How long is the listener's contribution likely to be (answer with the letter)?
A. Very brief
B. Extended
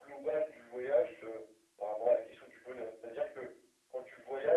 A